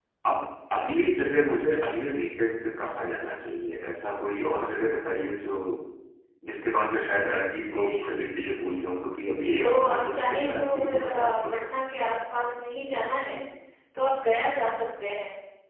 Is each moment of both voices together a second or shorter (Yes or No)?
No